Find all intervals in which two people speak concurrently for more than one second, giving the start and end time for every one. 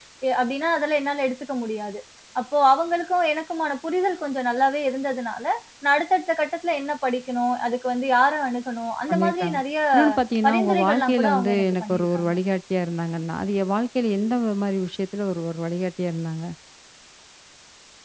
10.5-12.3

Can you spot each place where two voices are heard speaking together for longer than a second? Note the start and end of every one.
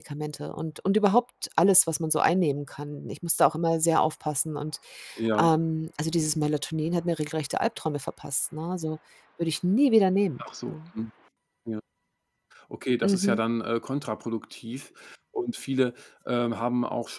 none

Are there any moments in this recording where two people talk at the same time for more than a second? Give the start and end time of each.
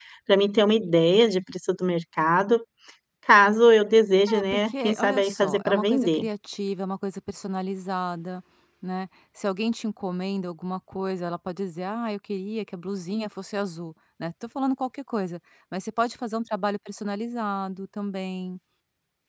4.3-6.2

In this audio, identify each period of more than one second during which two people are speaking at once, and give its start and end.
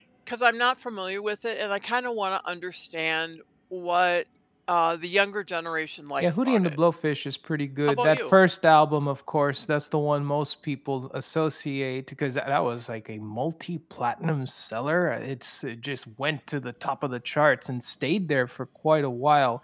none

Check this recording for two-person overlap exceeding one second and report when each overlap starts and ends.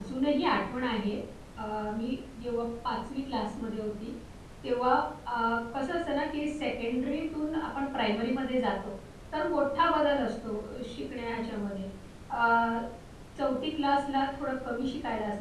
none

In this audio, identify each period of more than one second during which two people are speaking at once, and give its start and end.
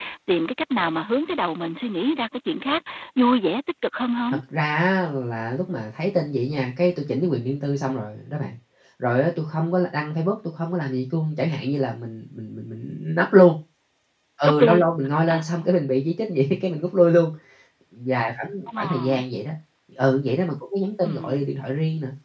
none

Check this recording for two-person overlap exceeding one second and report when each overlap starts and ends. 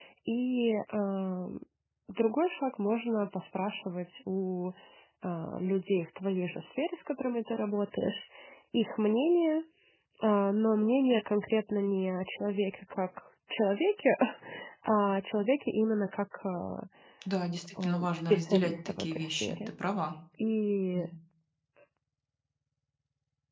17.8-19.6

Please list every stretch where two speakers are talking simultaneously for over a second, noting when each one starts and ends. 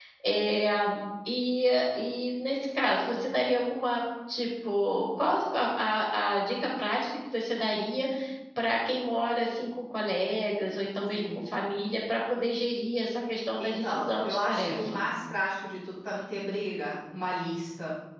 13.6-15.1

